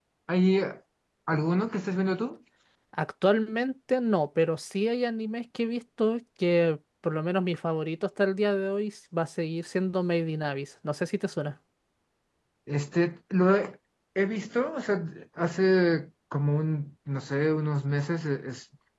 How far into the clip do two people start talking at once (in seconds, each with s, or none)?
none